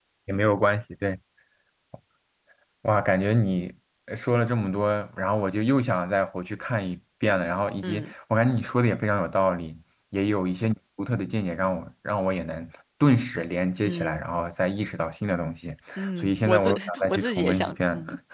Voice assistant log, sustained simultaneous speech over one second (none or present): present